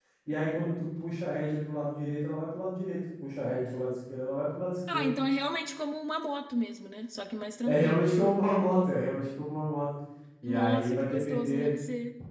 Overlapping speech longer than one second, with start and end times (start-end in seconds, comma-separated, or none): 10.4-11.7